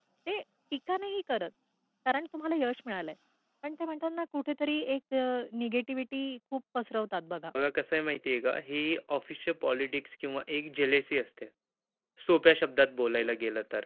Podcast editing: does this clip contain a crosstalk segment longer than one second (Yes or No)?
No